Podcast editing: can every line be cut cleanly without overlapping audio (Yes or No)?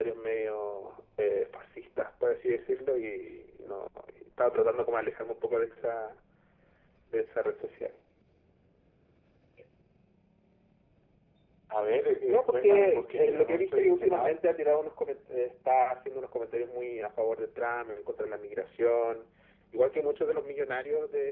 No